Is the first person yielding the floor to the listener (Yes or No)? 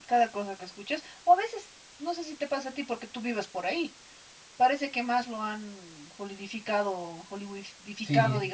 No